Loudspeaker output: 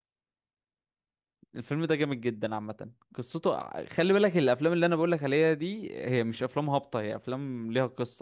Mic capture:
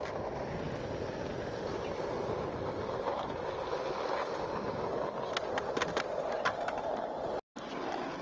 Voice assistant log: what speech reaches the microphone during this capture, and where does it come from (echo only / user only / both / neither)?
neither